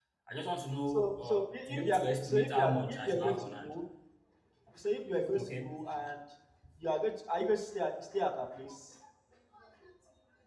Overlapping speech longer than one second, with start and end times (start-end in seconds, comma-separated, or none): 0.9-3.7